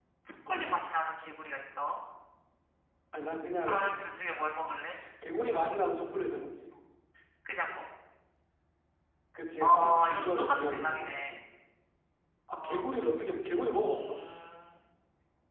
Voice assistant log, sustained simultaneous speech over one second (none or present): present